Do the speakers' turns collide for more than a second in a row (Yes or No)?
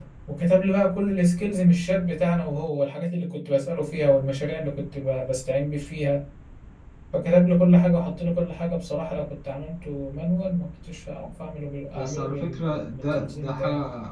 Yes